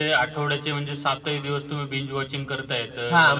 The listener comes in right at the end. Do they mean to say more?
Yes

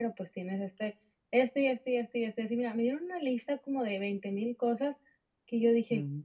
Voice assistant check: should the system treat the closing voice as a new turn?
No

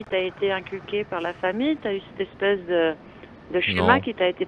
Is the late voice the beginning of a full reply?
No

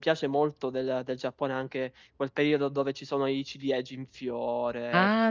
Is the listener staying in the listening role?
No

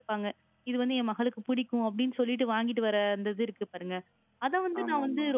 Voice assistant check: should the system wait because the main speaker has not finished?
Yes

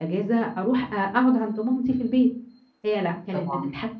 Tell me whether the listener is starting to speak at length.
No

